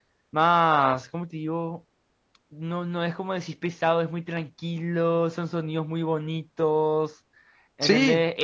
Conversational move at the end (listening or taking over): listening